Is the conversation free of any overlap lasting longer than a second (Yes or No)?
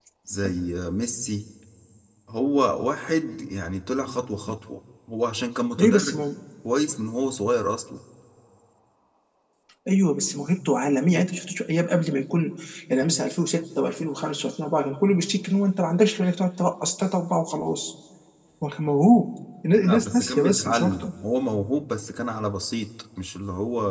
No